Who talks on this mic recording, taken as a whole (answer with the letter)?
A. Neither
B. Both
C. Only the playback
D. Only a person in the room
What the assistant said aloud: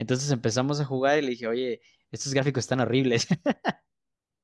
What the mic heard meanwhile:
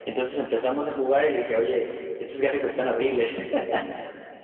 C